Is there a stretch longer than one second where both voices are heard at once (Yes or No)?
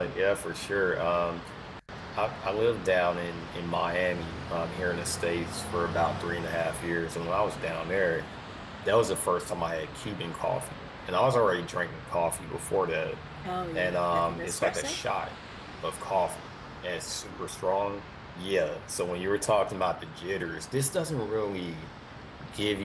Yes